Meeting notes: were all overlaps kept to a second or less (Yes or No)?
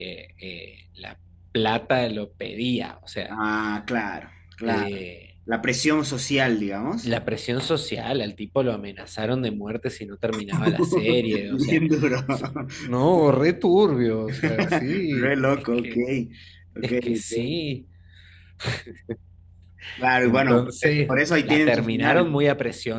No